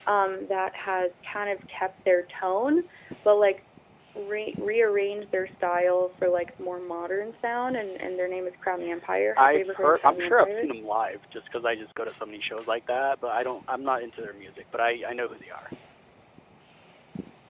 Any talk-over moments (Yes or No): Yes